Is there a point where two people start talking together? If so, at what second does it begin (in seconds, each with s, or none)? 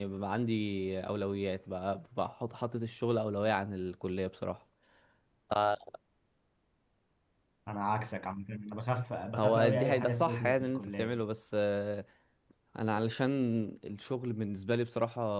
9.4 s